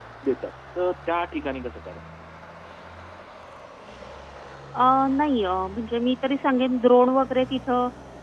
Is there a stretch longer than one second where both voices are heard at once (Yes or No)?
No